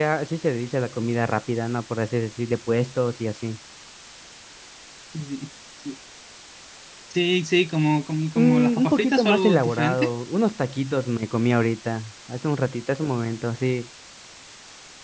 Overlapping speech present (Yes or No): Yes